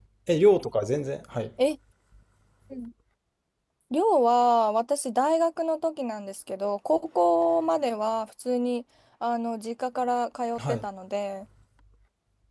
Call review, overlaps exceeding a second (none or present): none